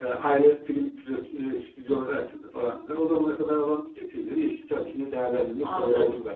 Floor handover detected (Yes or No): Yes